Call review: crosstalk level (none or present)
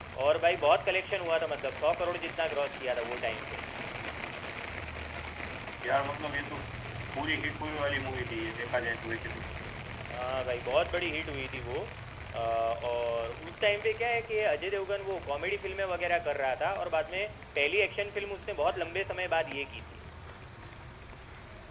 none